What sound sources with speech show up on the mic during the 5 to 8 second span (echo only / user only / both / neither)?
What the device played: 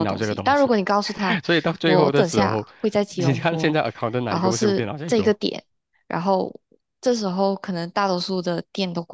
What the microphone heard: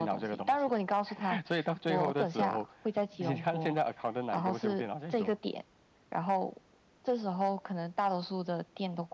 echo only